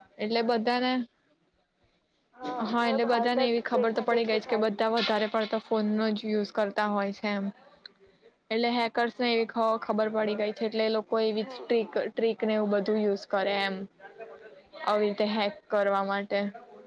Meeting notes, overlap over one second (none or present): present